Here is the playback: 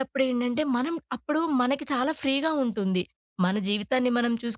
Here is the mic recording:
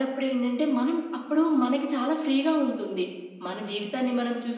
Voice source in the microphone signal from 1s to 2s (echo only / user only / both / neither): echo only